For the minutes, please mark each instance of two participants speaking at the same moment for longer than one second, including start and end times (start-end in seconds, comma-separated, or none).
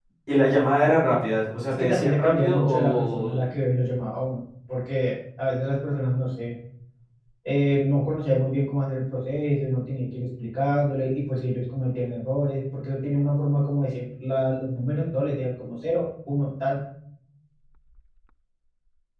1.7-3.3